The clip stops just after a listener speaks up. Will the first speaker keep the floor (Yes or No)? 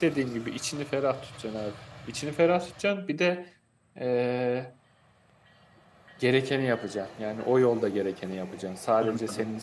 Yes